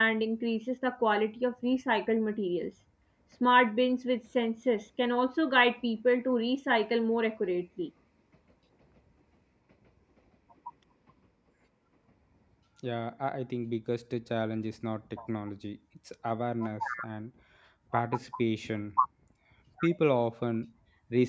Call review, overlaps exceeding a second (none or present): none